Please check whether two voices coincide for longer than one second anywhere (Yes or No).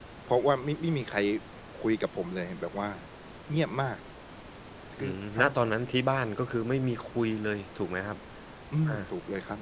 No